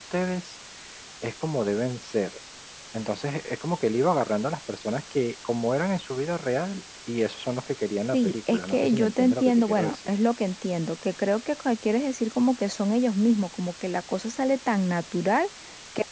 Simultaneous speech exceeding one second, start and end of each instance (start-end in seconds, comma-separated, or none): 8.1-10.1